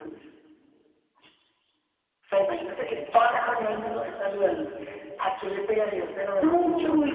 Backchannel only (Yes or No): No